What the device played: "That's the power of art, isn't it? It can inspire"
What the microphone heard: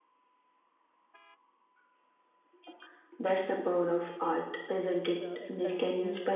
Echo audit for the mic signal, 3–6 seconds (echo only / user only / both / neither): both